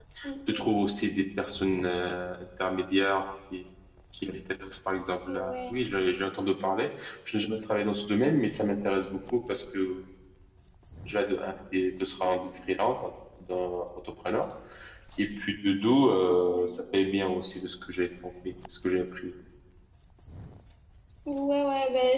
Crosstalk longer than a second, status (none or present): none